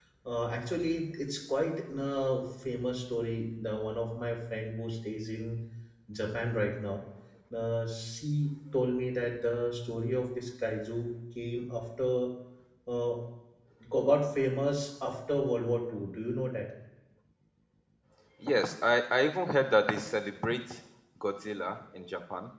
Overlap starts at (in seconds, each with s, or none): none